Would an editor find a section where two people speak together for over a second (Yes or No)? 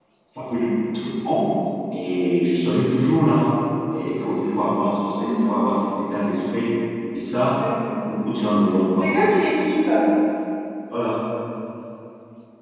No